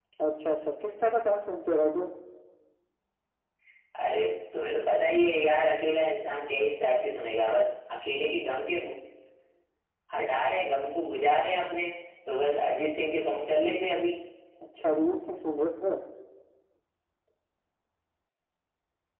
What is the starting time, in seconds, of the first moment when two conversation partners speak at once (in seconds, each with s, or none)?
none